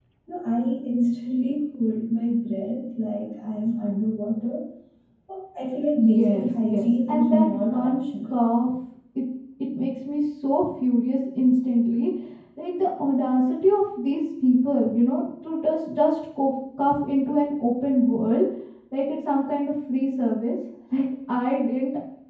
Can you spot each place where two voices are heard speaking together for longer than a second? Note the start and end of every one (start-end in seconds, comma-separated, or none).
5.9-8.3